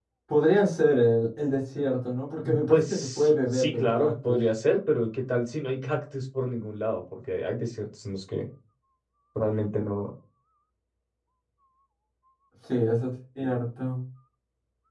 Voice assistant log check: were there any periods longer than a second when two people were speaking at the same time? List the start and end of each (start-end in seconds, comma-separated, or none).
2.7-4.4